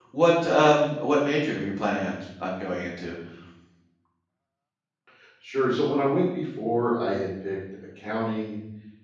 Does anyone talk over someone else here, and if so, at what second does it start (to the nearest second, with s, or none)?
none